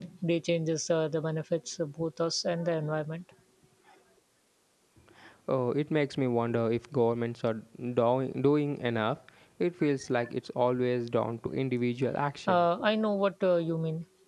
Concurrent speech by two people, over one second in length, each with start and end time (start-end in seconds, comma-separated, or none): none